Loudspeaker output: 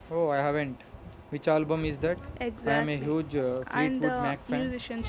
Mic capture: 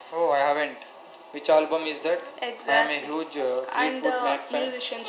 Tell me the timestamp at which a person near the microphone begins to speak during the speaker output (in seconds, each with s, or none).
none